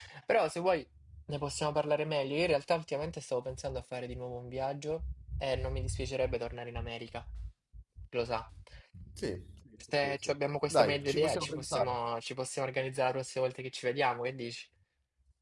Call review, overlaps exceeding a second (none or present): present